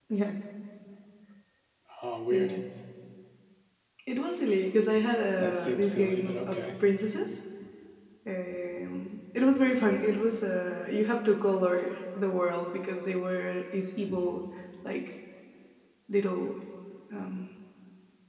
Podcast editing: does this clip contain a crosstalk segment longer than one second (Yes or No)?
Yes